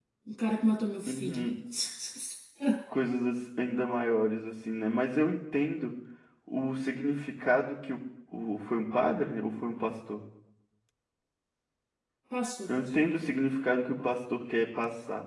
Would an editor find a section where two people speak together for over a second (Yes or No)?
No